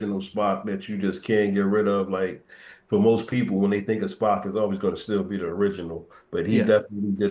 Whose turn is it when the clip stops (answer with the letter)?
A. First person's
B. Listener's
A